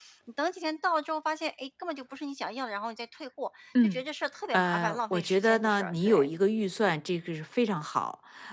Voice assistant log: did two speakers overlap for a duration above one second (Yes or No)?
Yes